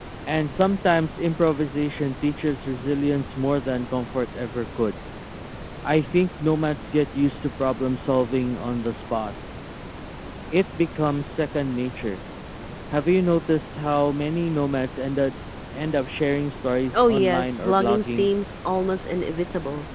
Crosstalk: present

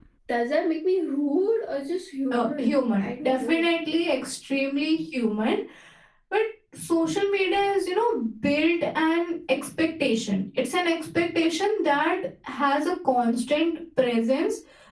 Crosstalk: present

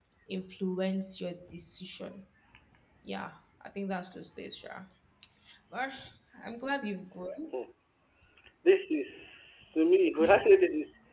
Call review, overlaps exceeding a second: none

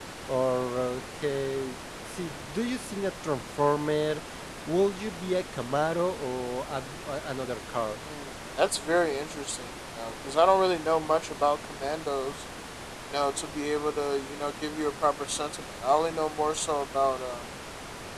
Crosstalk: none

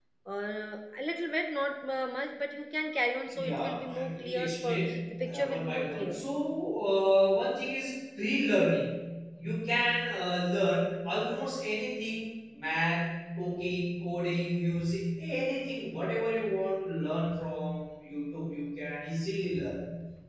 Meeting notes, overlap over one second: present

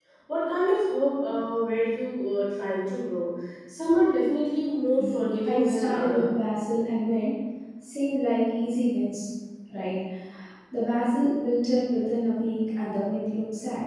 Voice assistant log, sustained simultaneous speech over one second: present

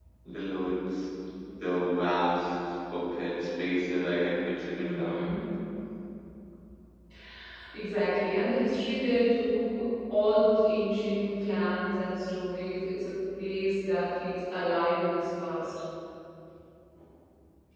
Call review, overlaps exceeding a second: none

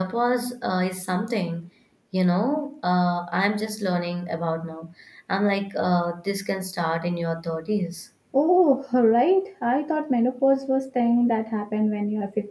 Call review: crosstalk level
none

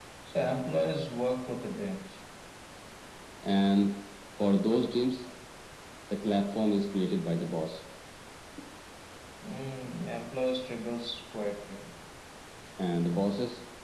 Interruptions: none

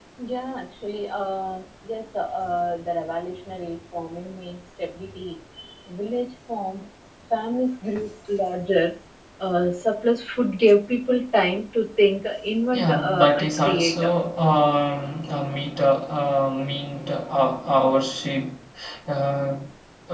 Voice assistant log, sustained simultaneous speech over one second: present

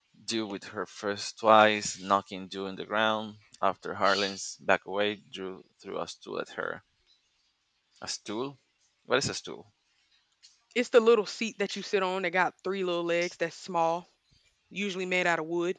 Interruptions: none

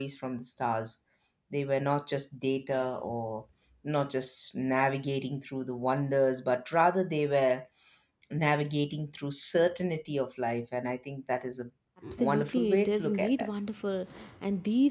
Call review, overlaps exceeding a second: present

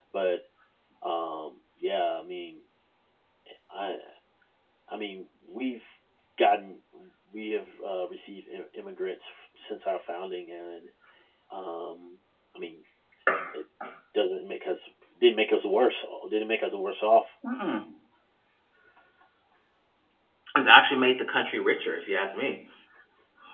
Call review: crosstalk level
none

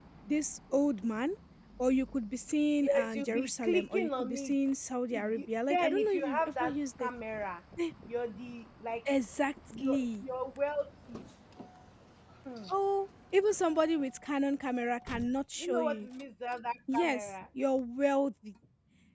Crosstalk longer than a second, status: present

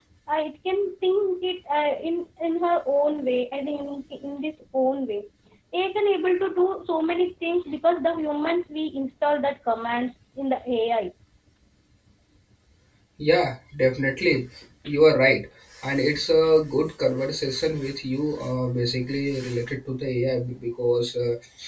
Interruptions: none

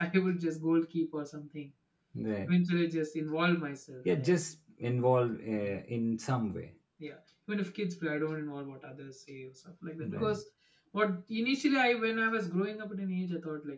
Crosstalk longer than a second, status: none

